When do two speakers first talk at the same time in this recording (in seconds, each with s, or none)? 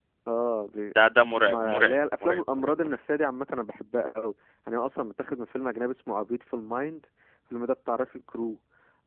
1.4 s